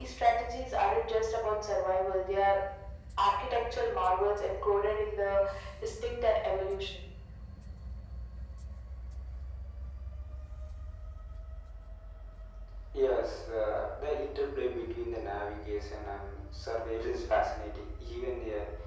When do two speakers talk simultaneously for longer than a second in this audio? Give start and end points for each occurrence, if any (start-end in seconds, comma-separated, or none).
none